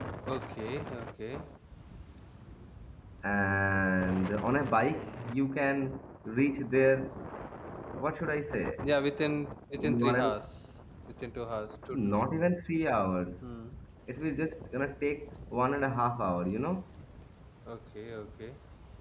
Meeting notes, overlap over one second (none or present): none